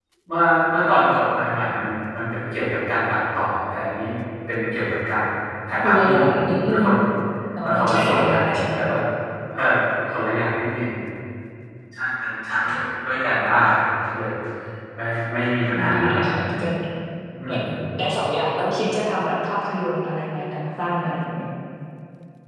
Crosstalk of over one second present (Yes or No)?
Yes